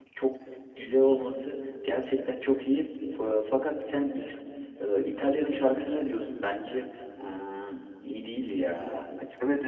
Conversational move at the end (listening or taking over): taking over